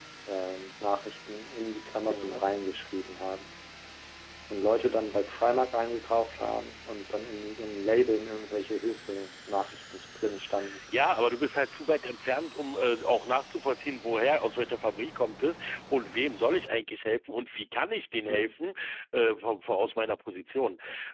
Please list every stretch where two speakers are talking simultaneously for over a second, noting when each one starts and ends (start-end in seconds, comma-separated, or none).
none